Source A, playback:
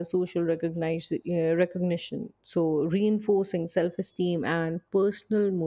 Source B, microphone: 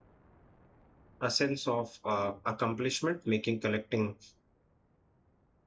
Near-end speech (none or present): present